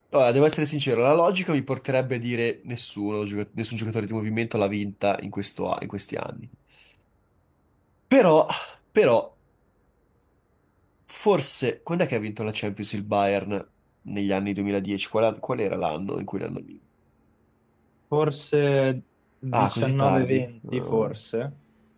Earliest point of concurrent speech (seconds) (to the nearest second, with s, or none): 20 s